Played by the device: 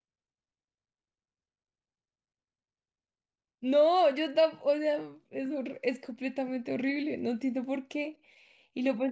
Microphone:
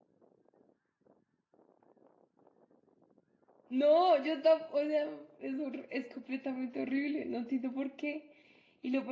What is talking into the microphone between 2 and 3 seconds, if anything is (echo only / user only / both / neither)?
neither